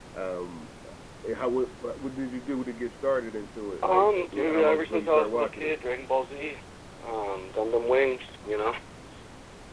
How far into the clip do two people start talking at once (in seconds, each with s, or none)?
3.8 s